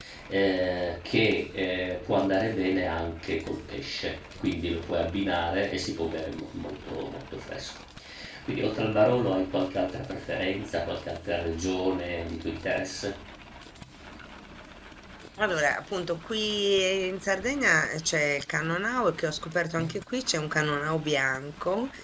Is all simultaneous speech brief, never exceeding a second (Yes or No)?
Yes